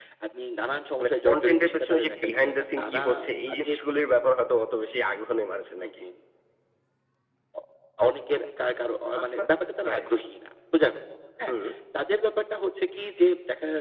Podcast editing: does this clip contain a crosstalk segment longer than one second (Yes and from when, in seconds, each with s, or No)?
Yes, from 1.0 s